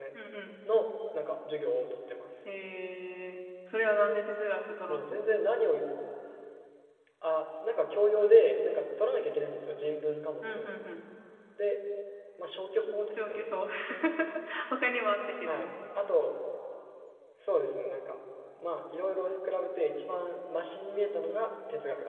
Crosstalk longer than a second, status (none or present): none